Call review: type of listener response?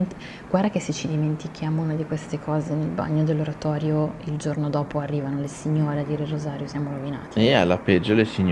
taking over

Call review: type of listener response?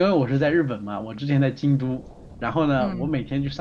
listening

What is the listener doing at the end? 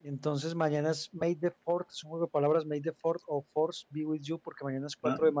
listening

